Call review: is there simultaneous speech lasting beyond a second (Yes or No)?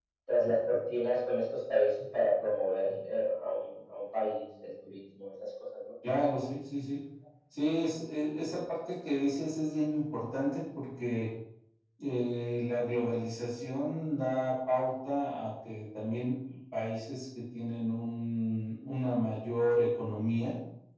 No